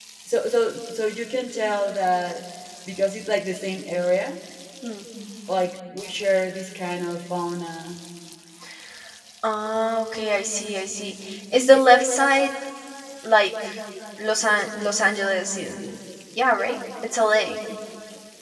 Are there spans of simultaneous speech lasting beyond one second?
No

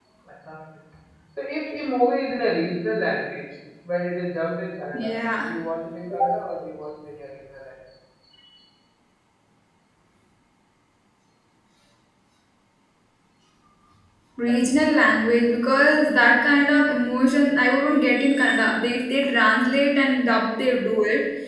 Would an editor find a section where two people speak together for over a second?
No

